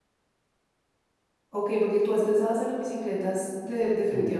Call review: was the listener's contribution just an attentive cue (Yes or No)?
No